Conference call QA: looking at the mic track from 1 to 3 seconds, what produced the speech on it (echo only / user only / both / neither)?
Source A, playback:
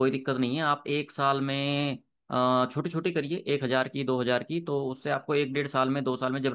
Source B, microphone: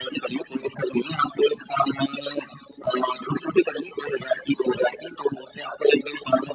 echo only